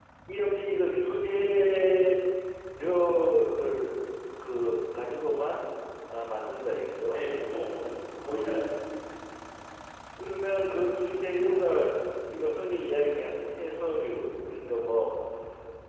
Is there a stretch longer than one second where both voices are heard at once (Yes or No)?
No